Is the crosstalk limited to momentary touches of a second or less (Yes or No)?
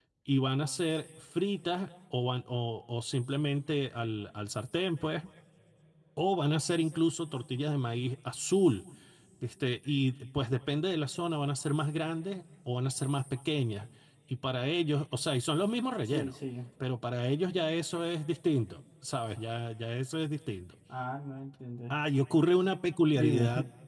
Yes